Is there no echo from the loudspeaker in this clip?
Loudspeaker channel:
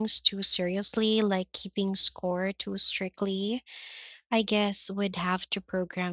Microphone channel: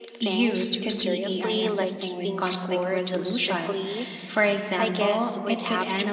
No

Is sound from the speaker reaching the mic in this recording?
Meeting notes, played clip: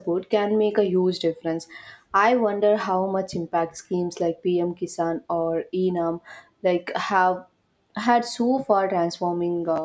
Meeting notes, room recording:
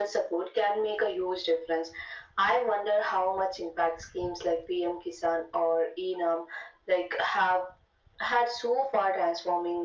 Yes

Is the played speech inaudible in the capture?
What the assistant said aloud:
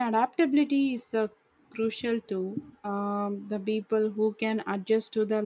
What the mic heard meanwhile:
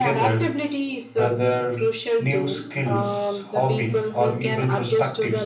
No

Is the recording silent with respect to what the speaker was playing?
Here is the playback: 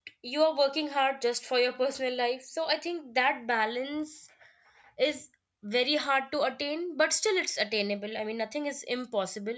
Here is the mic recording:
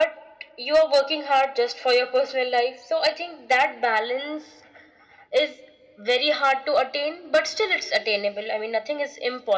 No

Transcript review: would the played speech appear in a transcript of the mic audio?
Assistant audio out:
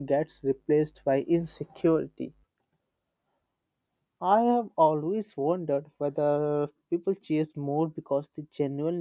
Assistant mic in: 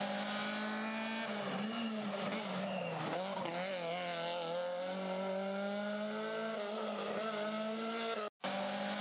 No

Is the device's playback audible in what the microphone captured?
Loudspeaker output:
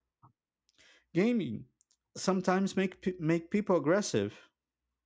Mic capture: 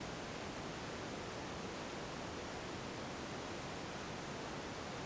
No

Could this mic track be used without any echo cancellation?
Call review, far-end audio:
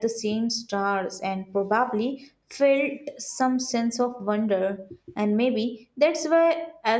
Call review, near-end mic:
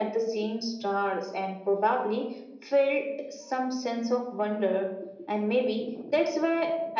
No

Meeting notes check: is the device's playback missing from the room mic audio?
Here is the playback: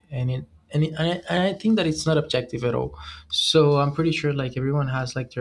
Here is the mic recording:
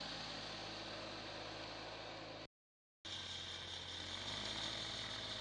Yes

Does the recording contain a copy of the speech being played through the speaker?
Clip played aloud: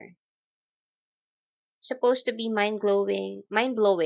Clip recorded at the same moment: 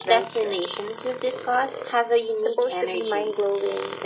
Yes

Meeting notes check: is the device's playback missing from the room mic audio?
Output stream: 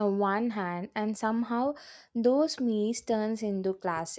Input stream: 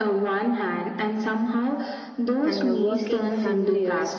No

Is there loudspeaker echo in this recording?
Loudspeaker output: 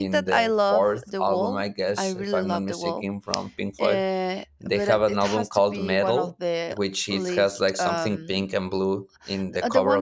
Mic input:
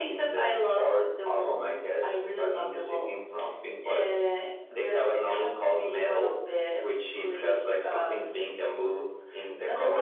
Yes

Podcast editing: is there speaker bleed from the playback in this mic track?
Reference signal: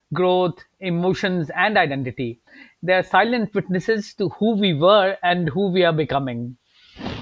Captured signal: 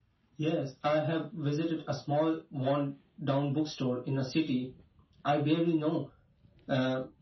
No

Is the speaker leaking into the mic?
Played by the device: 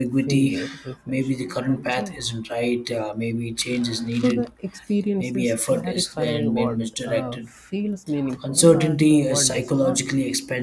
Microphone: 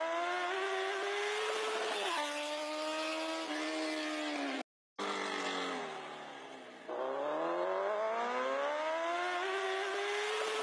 No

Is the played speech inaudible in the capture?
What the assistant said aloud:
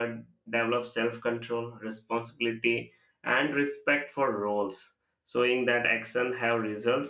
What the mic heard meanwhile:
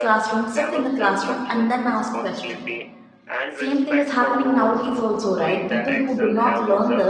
No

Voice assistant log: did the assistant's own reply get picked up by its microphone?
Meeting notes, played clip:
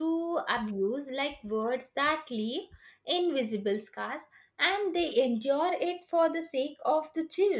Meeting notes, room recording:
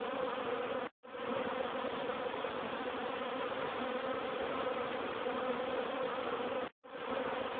No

